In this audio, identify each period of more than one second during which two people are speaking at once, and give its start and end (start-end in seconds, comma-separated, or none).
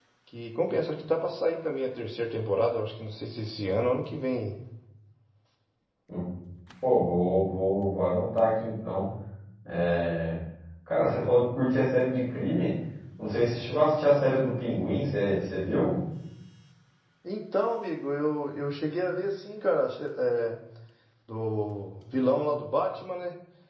none